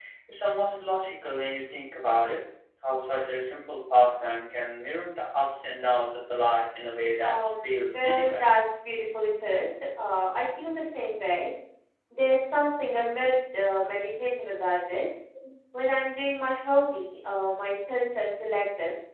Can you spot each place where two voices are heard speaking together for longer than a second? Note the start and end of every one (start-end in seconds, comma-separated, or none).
7.2-8.6